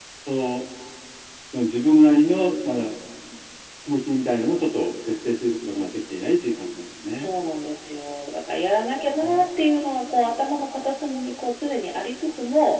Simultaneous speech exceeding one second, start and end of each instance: none

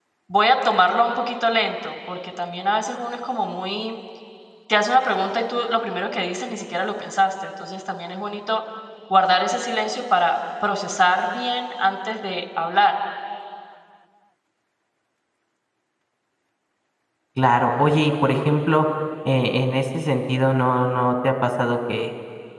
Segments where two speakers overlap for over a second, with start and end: none

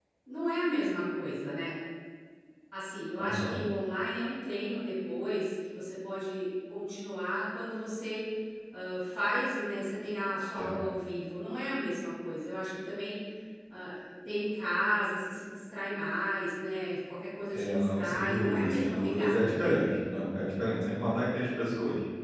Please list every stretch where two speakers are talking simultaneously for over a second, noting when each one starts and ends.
17.5-19.8

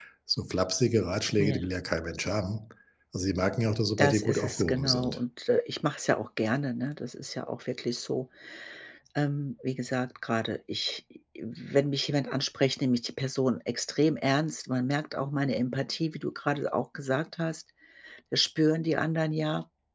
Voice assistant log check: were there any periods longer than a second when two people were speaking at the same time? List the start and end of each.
4.0-5.2

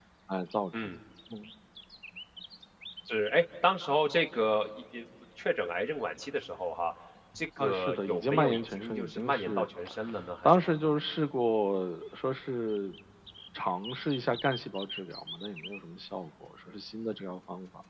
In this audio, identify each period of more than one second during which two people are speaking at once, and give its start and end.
7.6-9.7

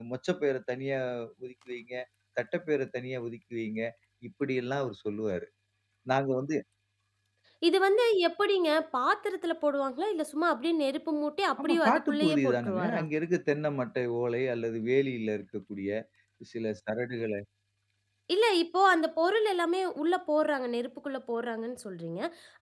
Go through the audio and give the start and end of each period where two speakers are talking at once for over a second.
11.6-13.0

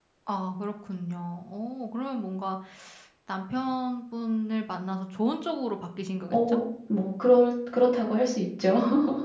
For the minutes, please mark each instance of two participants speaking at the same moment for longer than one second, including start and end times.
none

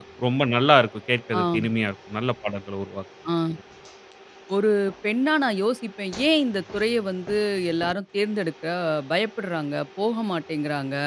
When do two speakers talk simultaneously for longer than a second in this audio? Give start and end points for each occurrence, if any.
none

